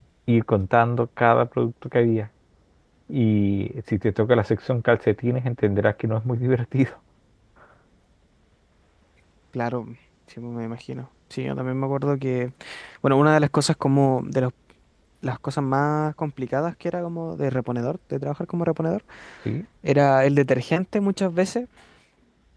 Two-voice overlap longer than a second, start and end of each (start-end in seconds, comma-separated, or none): none